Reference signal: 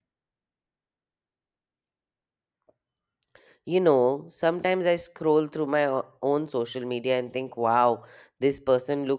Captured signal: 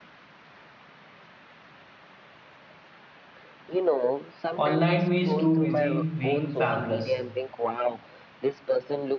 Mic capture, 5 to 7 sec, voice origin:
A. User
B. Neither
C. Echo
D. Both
D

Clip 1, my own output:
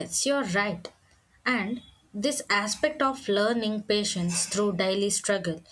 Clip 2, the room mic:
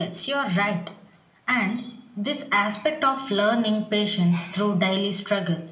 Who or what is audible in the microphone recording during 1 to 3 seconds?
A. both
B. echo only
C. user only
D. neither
B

